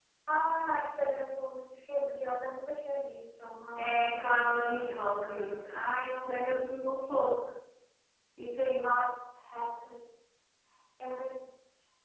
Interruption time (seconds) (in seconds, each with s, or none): 3.8 s